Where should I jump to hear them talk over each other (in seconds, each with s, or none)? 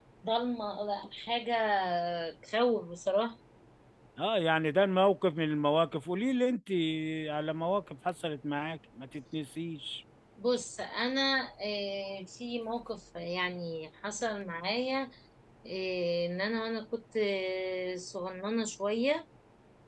none